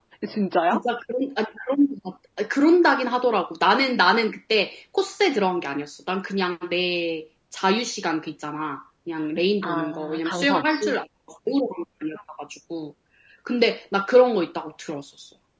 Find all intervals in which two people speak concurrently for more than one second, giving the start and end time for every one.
9.6-10.9

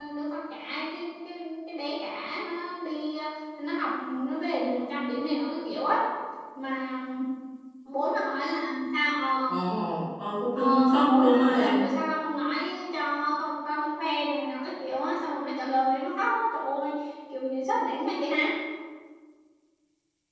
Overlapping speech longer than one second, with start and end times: 10.6-11.9

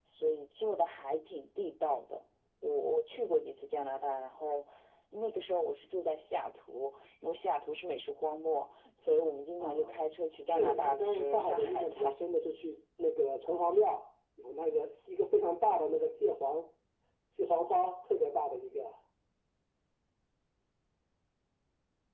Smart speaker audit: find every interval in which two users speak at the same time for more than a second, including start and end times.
10.5-12.2

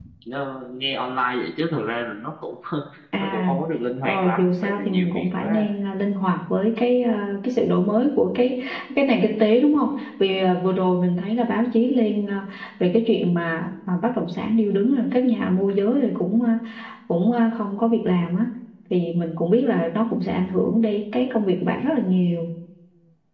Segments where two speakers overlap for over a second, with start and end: 4.0-5.6

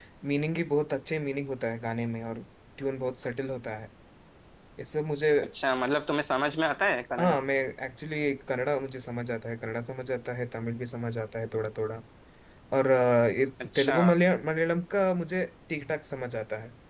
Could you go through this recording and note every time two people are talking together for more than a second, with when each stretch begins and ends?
none

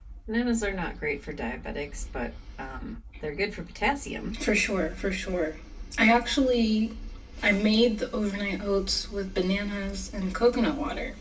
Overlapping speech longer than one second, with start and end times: none

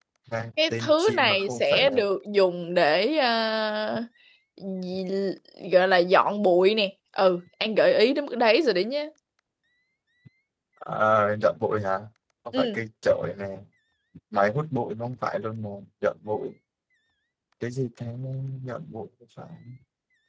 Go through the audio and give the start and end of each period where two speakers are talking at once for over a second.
0.7-2.0

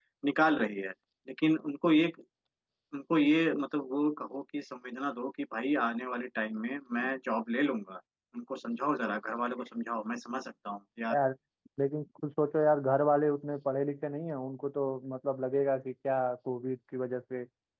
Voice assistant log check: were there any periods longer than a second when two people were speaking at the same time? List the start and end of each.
none

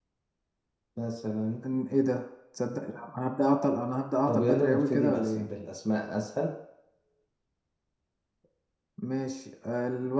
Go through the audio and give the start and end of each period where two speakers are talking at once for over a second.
4.3-5.5

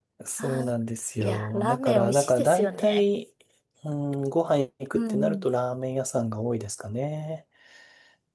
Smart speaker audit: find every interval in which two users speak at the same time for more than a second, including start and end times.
1.2-3.0

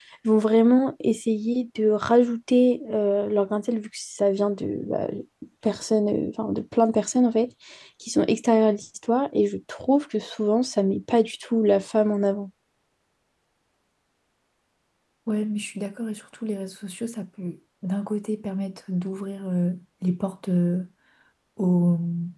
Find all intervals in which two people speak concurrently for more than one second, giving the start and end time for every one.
none

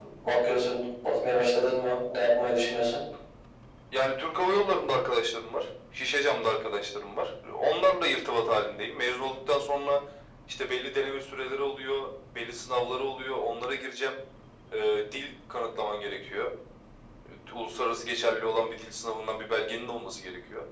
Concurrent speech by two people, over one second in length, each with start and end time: none

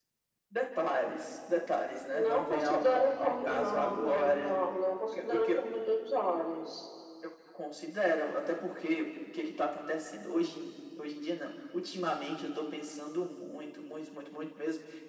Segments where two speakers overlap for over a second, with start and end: 2.1-4.5

